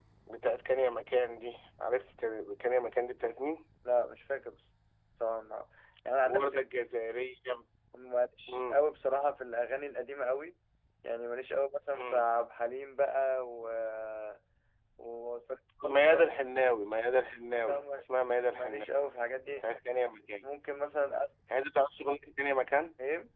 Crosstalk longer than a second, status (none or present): none